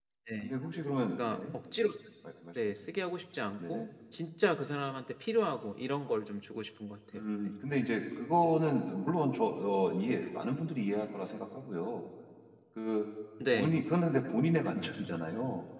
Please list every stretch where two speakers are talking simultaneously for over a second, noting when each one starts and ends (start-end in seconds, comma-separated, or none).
none